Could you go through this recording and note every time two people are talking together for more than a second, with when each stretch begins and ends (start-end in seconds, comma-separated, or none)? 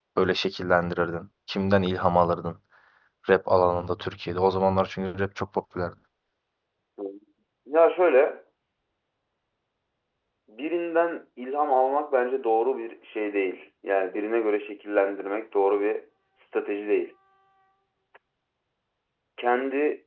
none